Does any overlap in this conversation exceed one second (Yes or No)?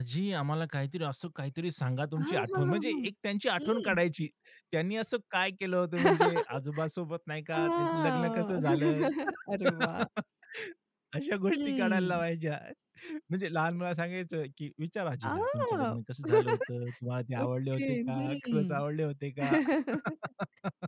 Yes